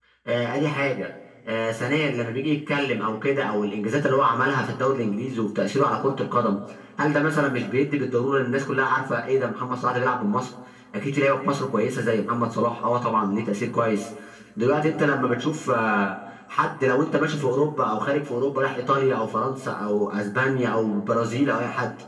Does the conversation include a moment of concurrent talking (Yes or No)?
No